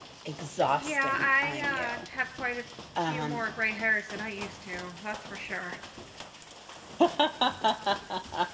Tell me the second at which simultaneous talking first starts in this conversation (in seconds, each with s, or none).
0.6 s